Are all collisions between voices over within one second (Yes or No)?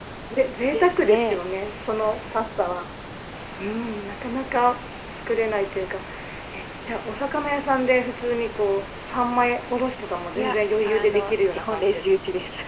No